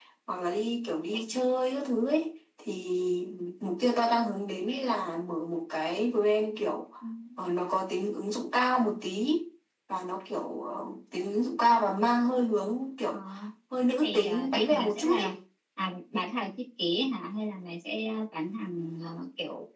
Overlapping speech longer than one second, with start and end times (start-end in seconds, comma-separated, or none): 13.9-15.3